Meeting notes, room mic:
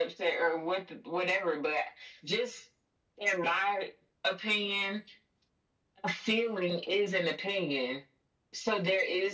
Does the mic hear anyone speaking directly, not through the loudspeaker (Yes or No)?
No